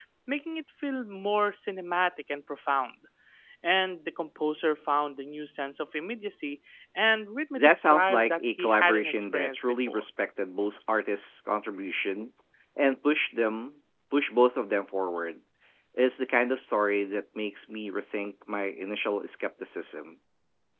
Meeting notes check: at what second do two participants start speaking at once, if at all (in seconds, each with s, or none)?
7.6 s